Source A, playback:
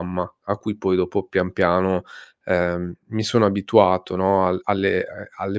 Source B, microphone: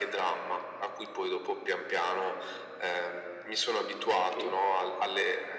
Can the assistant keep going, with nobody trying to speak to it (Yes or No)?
No